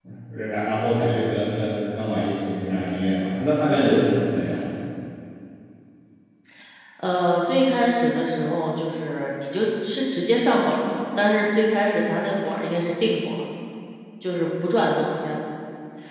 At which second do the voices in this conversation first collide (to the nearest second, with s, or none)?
none